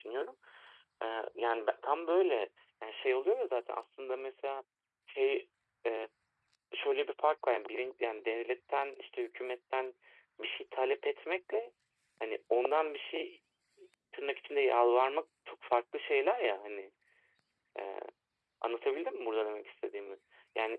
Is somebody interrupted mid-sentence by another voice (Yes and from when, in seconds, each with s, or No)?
No